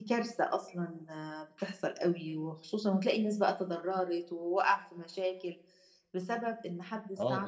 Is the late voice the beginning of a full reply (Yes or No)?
No